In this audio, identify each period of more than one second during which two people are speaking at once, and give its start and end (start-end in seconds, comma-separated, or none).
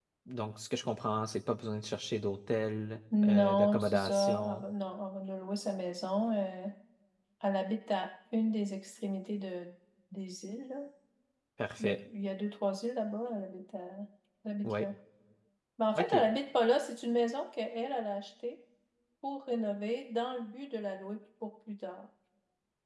3.2-4.6